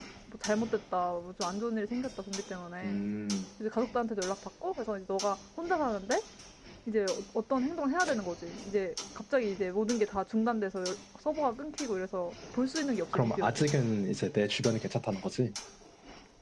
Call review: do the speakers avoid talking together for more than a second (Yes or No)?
Yes